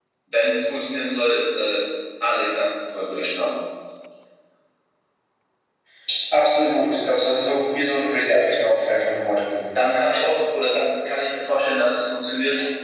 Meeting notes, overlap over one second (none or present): none